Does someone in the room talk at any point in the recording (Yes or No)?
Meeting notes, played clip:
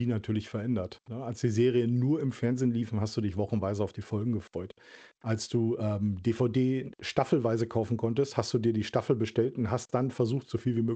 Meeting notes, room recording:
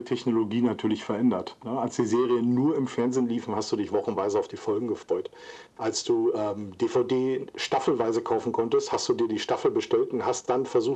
No